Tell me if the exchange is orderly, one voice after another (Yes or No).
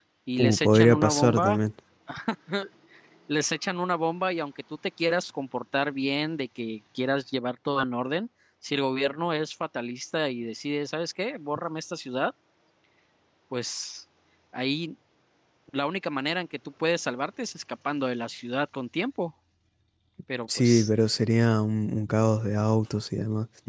No